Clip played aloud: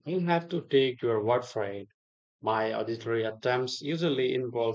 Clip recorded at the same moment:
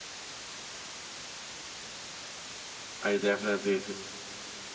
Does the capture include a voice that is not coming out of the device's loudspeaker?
Yes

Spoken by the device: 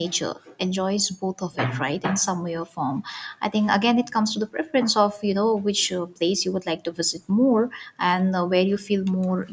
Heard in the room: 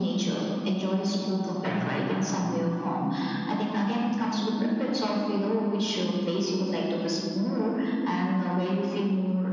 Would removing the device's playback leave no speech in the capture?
Yes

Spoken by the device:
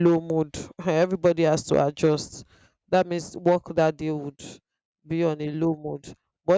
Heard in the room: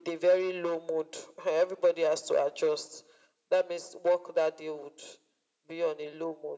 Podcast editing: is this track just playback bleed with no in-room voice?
Yes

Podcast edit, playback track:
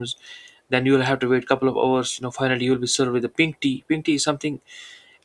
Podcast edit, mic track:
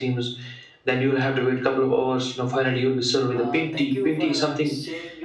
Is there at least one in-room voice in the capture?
Yes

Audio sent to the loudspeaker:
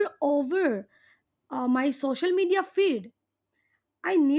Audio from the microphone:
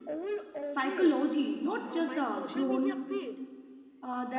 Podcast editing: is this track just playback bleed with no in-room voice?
No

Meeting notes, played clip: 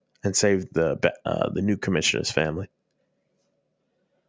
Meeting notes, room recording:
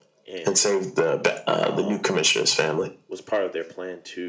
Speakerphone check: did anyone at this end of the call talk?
Yes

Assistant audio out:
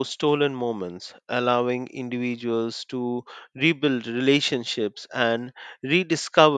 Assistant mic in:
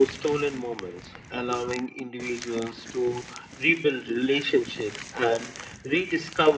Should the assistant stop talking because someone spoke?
No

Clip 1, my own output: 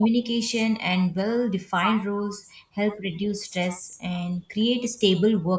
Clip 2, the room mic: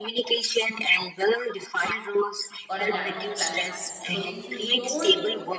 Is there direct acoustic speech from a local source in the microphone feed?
Yes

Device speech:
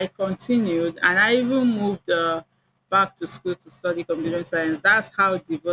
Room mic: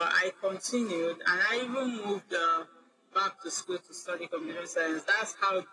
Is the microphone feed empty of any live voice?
Yes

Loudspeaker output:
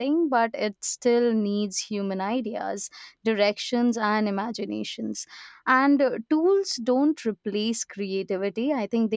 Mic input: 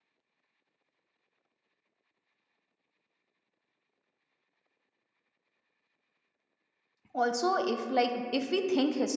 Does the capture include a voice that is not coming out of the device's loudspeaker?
Yes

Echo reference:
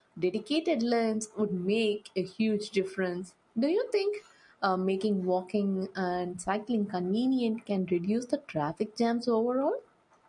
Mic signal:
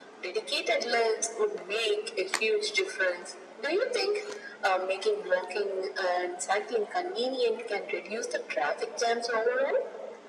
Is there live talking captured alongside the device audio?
No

